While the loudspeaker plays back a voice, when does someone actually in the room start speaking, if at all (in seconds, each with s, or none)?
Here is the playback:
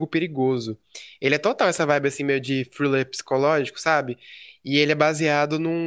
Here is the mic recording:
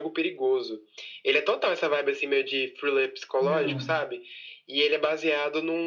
3.4 s